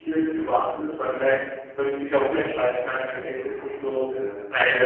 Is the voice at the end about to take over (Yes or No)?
No